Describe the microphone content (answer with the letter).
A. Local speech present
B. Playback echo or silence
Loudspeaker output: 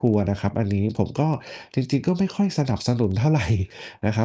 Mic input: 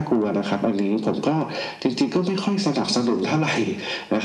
B